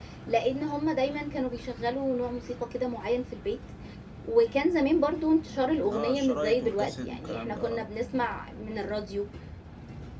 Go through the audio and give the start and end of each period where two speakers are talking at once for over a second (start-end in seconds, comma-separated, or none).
6.0-7.8